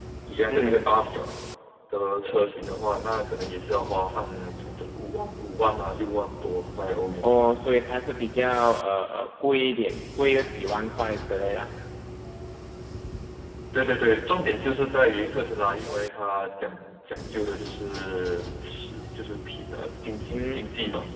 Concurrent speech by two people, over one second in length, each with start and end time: none

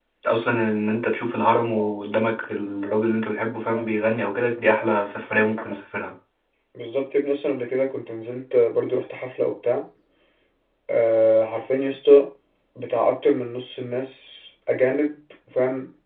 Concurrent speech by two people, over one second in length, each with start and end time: none

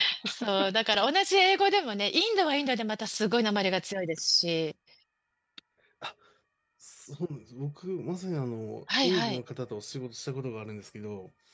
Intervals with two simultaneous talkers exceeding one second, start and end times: none

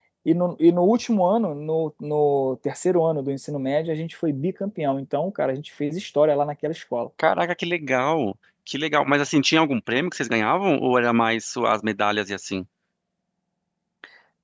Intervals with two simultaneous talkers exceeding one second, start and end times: none

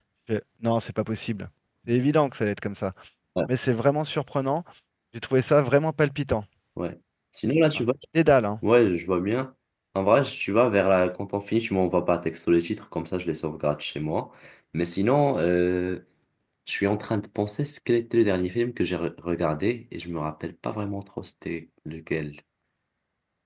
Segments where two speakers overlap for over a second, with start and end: none

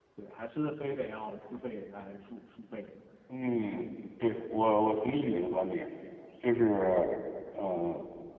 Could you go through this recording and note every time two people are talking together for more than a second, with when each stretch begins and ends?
none

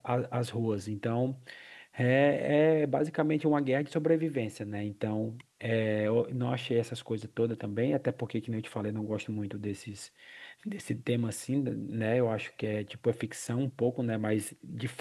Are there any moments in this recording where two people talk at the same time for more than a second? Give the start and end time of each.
none

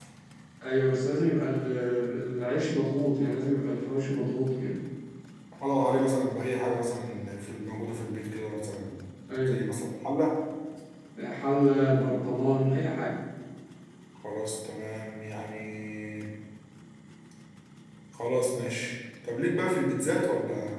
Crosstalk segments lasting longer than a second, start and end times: none

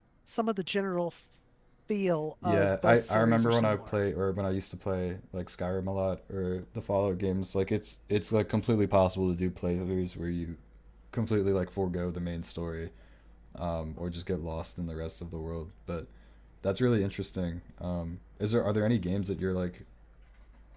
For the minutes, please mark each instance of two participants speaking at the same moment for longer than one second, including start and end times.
2.4-4.0

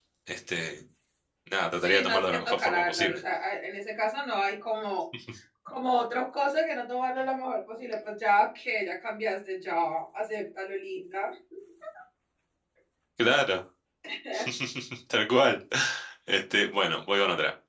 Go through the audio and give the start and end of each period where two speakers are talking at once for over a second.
1.8-3.2

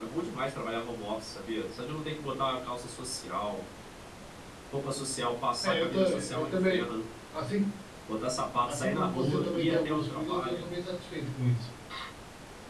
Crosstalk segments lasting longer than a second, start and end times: 5.6-6.9, 8.7-10.7

